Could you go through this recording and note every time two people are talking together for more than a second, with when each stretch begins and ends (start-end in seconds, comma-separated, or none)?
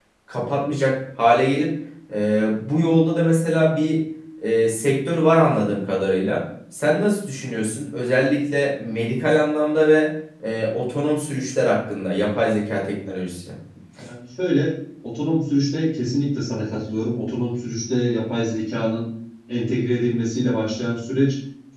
none